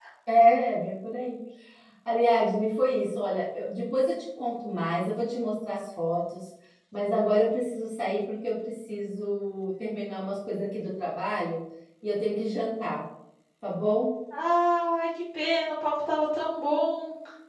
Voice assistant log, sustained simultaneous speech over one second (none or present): none